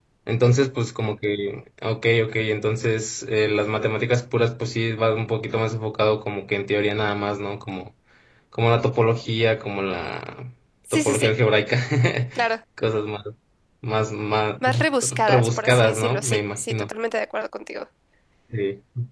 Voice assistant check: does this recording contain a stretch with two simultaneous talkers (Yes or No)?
Yes